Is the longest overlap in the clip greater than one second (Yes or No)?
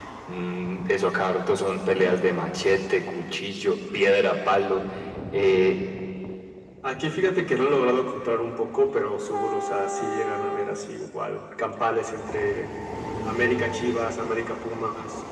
No